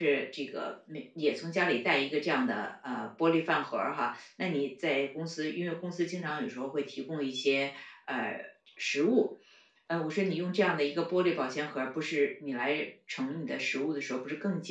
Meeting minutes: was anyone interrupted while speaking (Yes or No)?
No